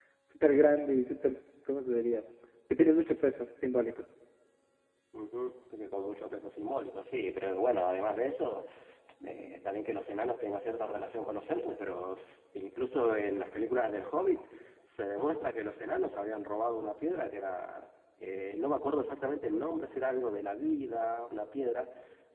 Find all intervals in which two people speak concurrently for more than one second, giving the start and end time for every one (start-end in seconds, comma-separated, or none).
none